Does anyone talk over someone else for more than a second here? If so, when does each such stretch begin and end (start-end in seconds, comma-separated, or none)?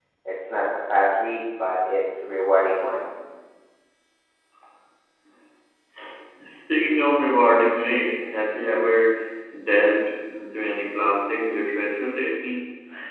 none